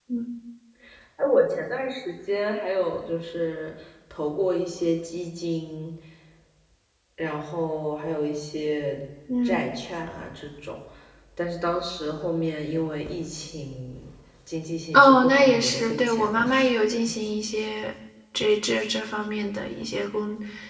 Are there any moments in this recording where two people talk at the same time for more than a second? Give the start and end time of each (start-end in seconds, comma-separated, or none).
14.9-16.4